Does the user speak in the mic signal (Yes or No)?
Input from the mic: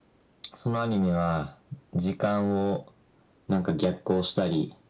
No